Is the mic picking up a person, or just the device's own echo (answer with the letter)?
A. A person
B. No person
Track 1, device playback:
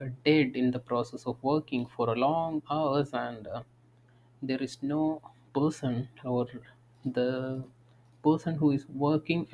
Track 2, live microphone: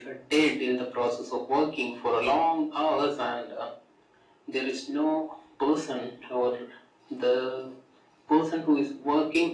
B